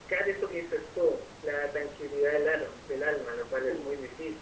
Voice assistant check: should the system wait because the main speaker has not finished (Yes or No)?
No